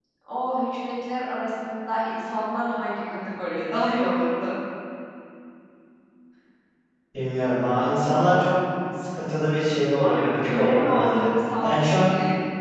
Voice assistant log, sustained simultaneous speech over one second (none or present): present